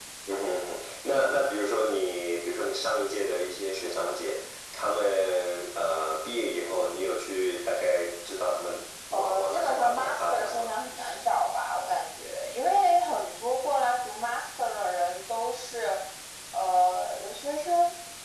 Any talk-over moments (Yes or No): Yes